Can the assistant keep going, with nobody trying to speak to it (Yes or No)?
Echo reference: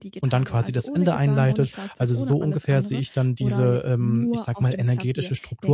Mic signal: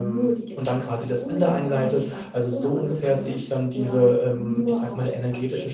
Yes